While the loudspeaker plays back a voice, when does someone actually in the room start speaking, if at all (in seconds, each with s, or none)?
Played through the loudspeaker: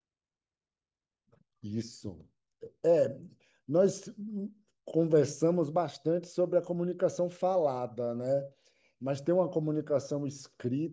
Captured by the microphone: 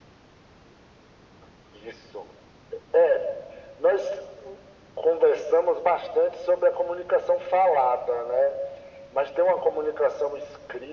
none